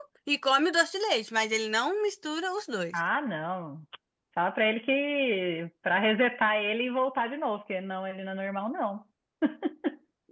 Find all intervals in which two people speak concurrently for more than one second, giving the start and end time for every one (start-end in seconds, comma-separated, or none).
none